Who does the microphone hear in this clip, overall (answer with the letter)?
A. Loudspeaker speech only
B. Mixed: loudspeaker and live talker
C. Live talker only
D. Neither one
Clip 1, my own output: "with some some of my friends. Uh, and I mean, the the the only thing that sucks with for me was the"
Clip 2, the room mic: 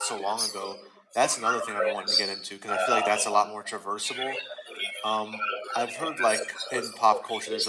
B